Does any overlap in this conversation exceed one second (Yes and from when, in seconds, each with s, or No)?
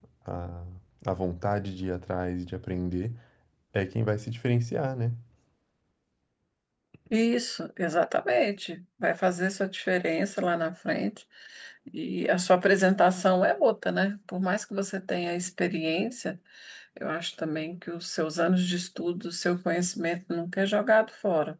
No